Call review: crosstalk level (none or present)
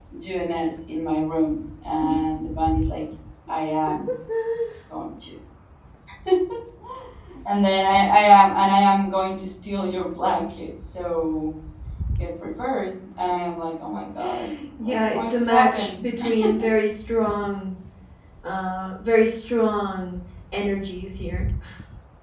present